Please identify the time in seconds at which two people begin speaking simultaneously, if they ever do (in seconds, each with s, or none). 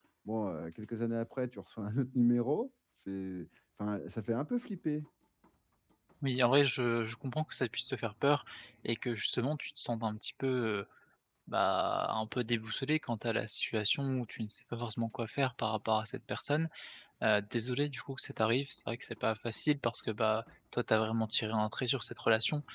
none